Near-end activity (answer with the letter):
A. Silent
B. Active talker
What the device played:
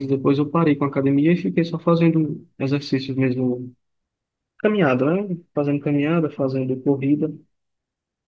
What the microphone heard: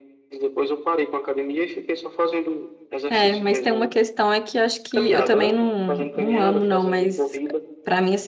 B